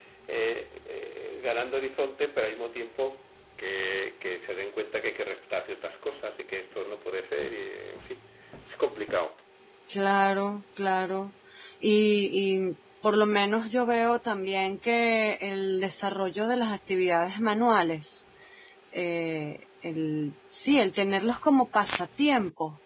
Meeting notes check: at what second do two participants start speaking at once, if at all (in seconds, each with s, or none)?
none